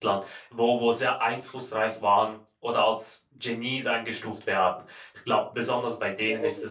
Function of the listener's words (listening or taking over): taking over